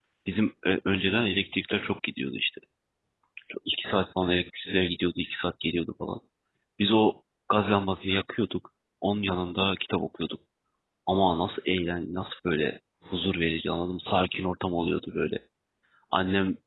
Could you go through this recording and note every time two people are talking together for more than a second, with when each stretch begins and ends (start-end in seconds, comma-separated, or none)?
none